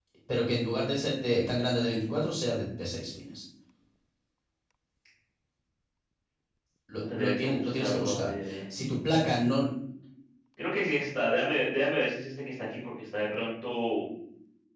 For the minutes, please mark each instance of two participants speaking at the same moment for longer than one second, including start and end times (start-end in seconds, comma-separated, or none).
7.0-8.6